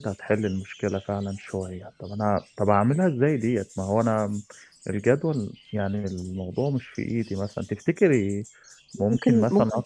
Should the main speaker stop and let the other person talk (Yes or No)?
Yes